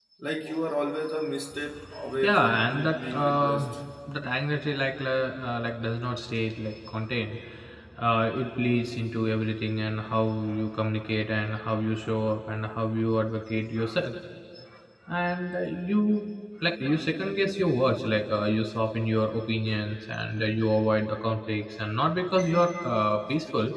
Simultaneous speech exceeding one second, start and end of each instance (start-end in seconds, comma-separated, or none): 2.2-3.6